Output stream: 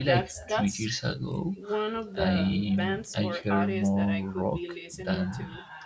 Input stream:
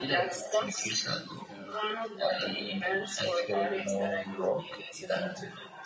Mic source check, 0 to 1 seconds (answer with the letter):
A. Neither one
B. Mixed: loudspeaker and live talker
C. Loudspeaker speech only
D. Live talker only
B